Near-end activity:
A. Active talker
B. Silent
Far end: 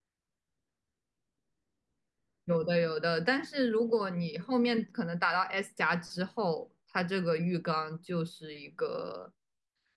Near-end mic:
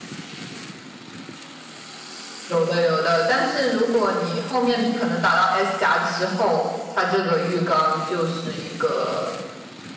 B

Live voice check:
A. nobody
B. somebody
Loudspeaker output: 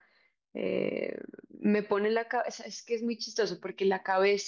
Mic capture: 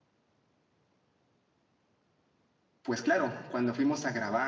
B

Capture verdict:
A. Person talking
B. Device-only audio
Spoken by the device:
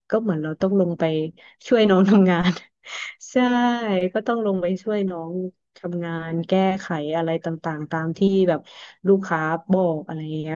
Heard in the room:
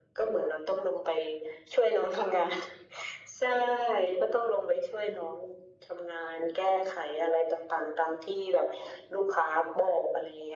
B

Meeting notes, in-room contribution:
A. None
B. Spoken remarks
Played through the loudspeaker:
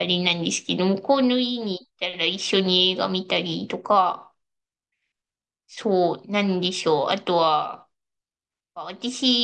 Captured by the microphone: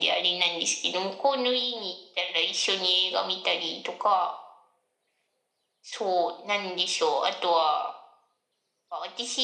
A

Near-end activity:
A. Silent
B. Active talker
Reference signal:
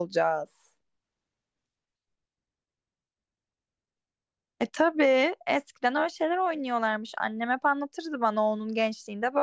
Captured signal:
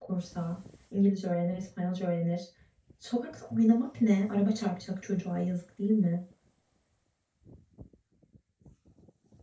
B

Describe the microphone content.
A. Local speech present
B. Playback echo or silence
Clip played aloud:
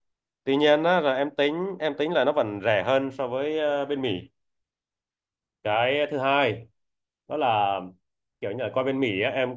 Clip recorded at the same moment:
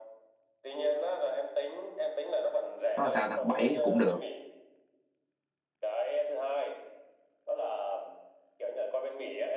A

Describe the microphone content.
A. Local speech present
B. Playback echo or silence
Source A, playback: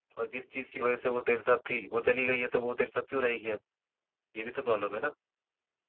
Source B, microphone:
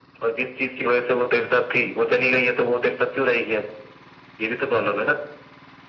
B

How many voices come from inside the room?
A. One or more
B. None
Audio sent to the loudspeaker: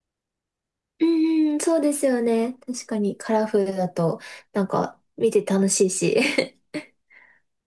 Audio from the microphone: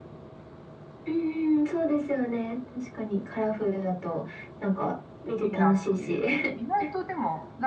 A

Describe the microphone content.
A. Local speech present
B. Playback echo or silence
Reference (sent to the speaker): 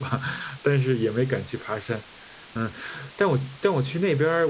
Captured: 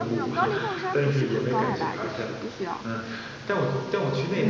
A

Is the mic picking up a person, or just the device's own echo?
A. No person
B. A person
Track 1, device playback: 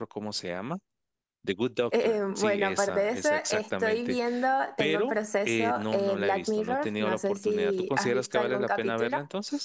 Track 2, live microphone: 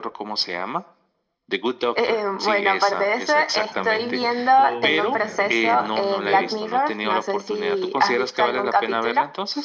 B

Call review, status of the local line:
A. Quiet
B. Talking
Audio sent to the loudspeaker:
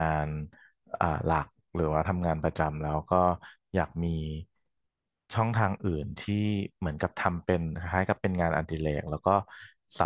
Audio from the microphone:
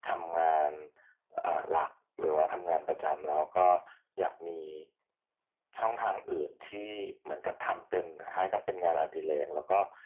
A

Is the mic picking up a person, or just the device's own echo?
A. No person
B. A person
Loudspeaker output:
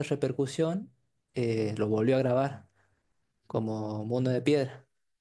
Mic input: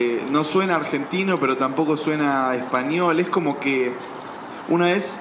B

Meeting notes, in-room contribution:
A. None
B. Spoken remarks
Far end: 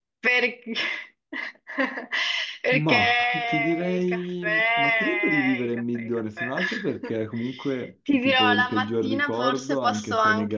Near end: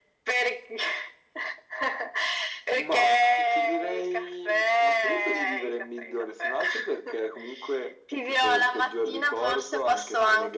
A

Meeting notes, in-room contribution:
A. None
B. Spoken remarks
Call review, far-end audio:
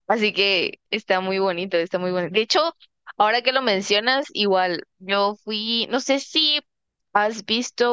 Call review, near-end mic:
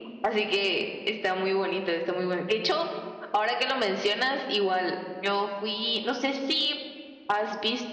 A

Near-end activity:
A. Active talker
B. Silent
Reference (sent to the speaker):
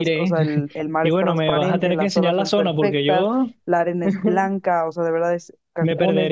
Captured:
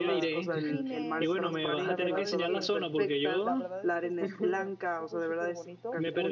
A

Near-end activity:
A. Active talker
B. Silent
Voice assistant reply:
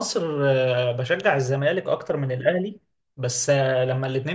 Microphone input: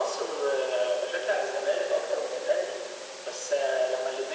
B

